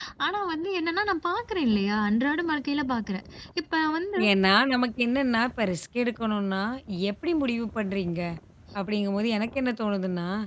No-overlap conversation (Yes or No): Yes